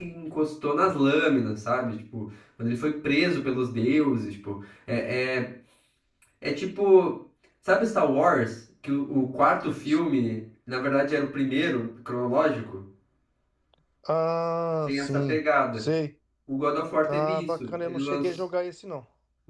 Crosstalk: present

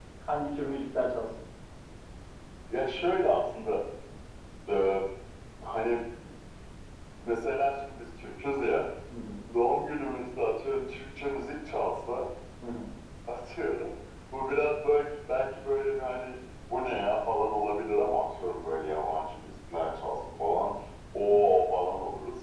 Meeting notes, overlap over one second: none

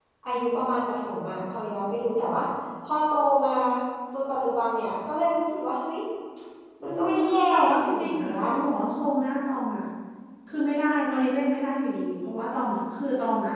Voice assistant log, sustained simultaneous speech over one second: present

